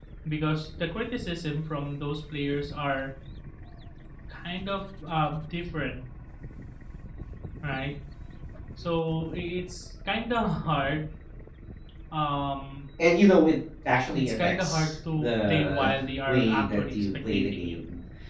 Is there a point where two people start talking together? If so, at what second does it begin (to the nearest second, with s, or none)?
14 s